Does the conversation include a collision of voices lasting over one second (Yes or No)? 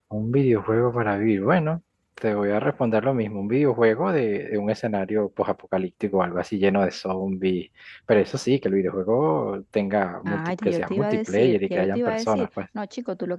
Yes